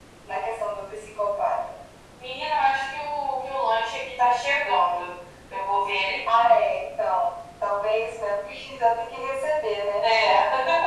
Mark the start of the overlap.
none

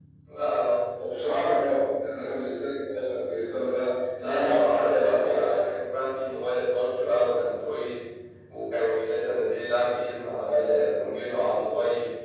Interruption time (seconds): 4.2 s

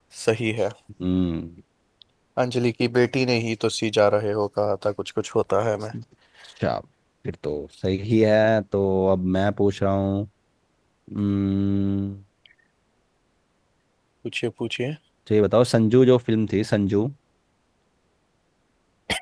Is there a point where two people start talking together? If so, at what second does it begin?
none

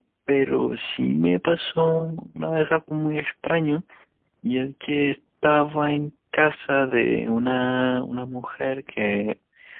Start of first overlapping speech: none

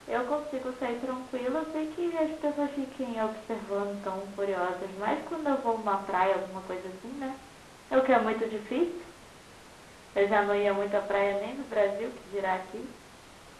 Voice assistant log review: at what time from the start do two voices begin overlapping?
none

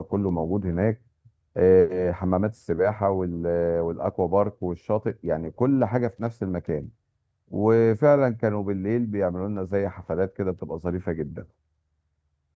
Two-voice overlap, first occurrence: none

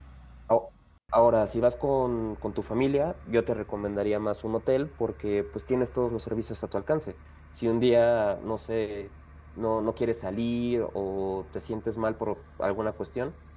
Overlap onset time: none

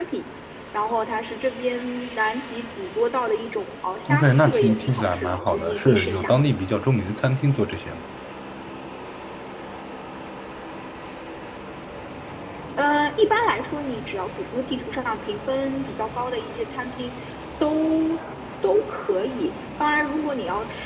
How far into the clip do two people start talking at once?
4.0 s

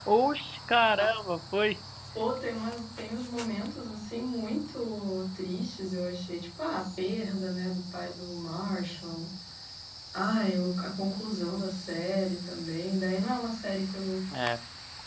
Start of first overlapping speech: none

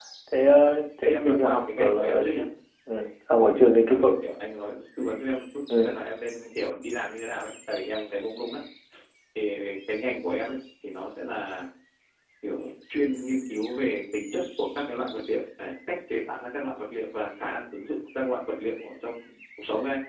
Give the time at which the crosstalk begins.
1.0 s

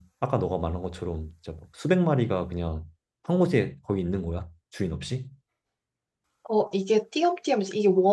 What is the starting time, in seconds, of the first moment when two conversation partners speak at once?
none

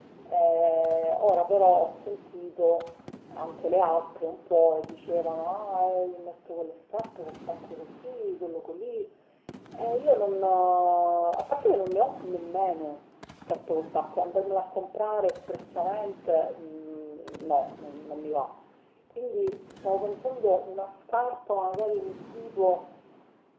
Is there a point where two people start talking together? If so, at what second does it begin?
none

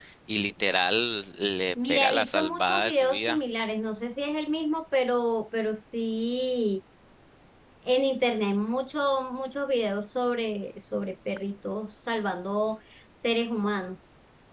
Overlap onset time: 1.8 s

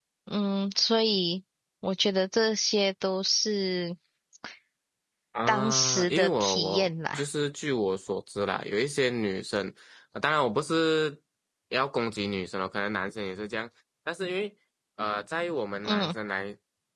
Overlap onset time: 5.5 s

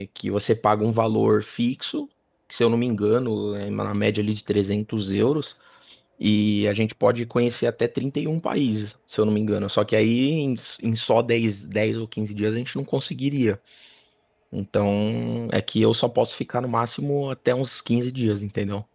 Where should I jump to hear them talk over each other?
none

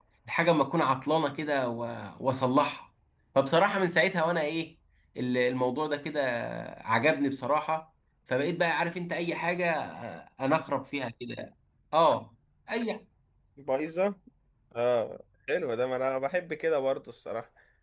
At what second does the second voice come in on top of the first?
none

